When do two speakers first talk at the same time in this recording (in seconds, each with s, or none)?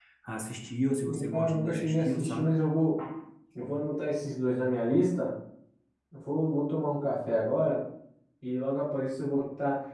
1.1 s